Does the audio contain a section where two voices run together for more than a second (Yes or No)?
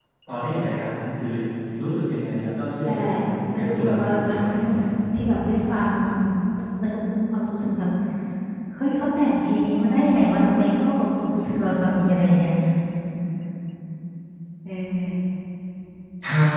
Yes